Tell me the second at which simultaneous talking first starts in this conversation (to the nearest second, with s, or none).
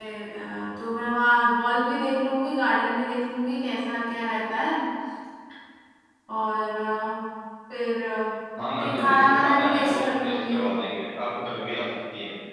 9 s